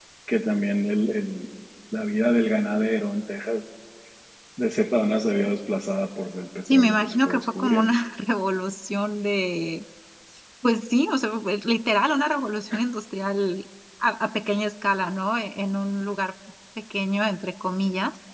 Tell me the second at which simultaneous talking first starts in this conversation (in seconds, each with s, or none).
6.7 s